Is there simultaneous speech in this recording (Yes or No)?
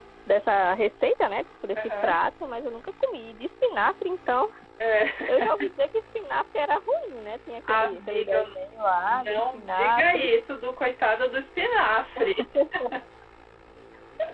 Yes